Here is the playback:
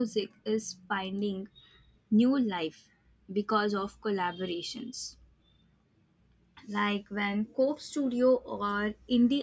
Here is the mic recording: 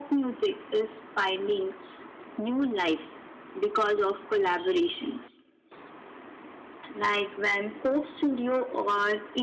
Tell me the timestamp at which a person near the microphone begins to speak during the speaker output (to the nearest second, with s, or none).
none